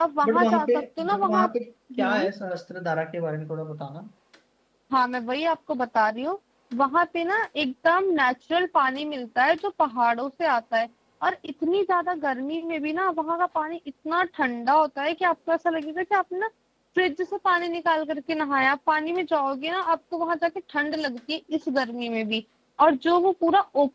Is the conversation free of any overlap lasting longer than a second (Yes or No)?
No